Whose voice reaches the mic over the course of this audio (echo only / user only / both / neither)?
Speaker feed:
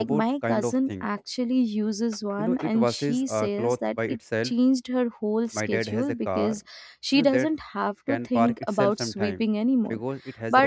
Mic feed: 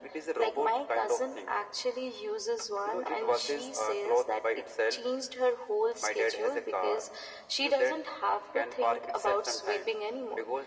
echo only